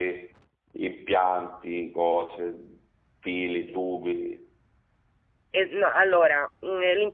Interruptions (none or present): none